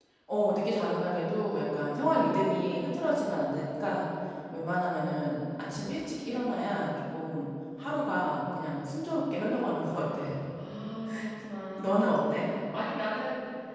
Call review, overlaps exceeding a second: none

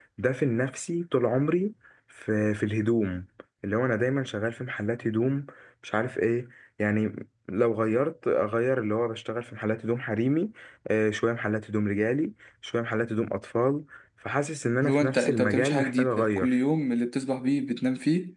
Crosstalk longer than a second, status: present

